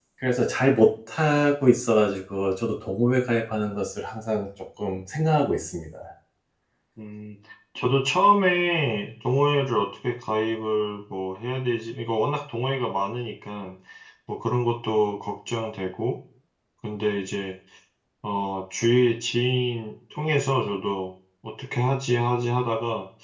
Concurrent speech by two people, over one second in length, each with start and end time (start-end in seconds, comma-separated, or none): none